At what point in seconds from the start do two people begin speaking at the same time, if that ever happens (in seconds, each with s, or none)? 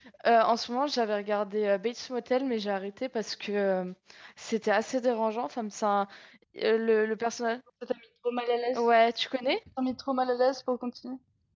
none